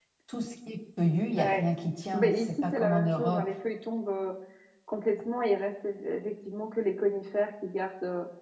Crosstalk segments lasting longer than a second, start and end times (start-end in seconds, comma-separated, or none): 2.1-3.5